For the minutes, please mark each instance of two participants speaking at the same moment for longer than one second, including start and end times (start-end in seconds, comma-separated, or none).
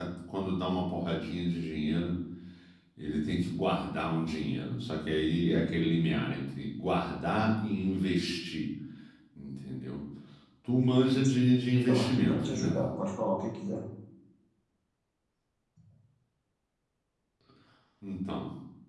11.2-12.8